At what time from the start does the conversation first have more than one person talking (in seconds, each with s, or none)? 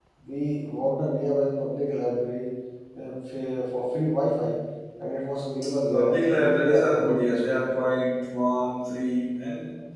5.9 s